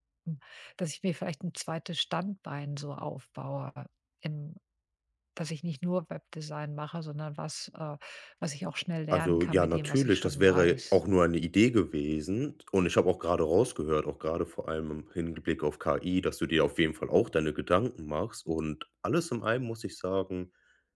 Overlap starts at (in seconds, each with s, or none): 9.1 s